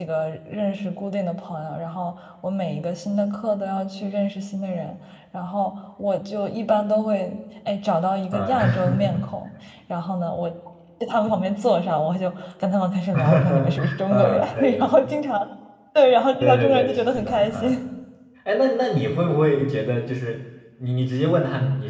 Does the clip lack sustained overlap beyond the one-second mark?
No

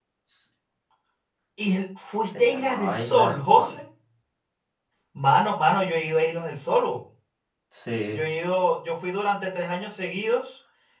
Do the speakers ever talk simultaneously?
Yes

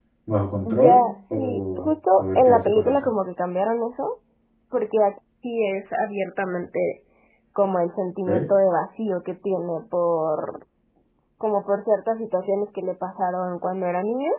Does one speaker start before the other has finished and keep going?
Yes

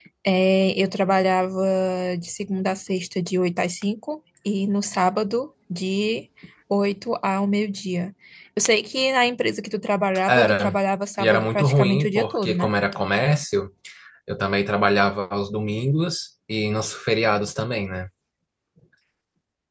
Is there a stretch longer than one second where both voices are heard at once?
Yes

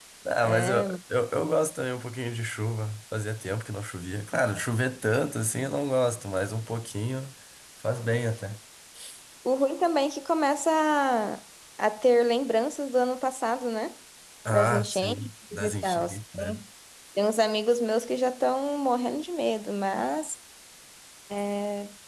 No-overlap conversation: No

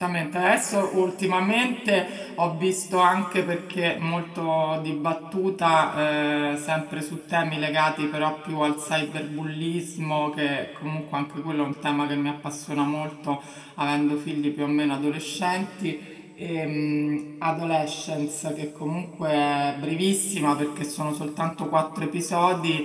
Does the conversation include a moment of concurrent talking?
No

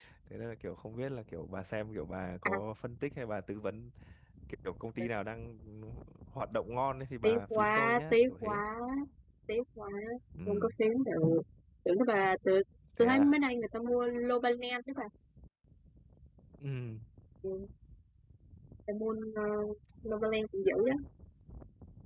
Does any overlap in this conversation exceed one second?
Yes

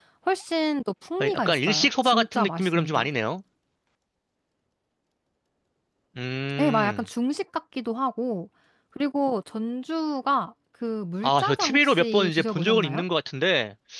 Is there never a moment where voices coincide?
No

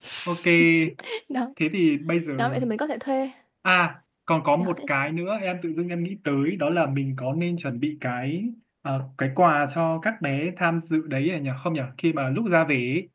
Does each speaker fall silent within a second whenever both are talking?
Yes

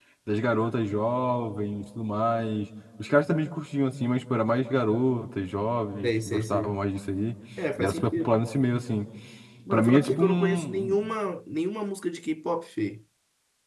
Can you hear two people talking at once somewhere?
Yes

